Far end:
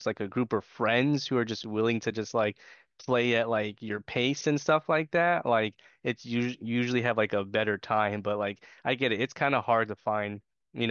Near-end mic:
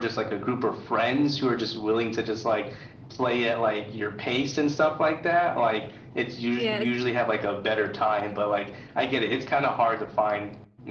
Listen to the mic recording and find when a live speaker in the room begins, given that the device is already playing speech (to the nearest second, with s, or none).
7 s